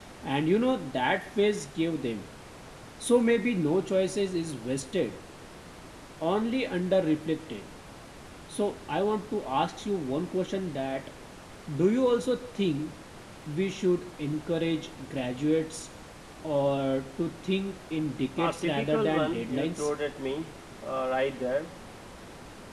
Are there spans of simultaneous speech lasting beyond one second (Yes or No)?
Yes